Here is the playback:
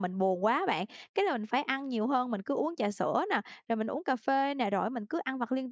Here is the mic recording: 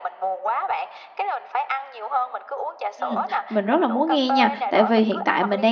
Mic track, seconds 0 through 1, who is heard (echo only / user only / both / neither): echo only